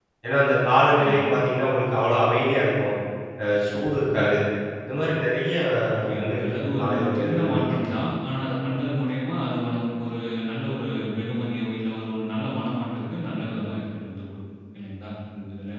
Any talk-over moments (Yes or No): Yes